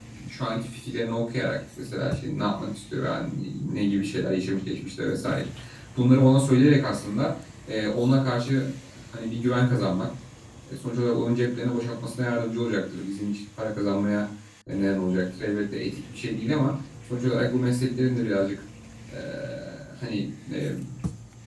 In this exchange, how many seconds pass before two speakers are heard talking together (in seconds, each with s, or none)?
none